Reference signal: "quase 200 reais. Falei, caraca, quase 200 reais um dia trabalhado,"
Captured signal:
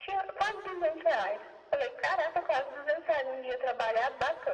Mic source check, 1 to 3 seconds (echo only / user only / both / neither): echo only